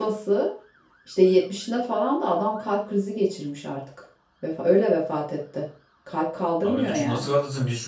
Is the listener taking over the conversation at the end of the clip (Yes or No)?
Yes